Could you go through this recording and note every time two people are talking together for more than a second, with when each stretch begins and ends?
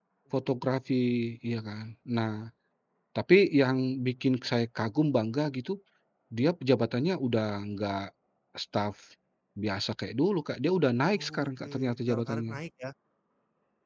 11.1-12.6

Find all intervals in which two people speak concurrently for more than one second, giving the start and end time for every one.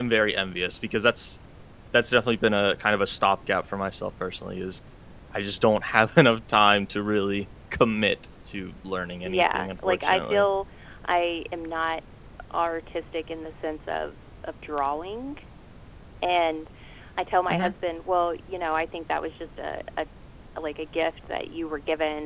9.2-10.5

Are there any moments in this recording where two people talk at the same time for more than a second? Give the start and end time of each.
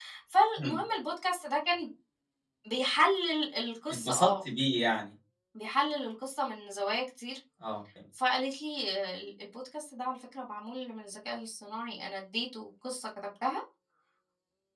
none

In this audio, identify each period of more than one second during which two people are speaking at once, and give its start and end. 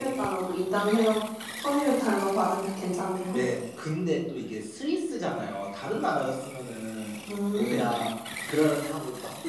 none

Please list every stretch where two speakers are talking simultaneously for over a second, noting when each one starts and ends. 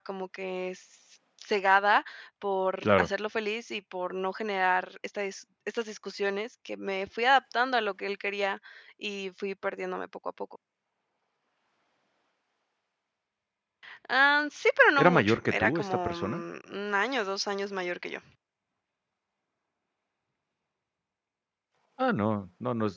15.0-16.4

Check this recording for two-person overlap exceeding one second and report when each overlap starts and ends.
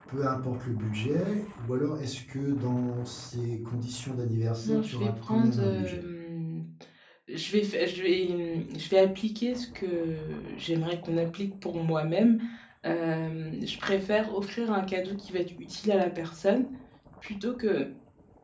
4.6-6.0

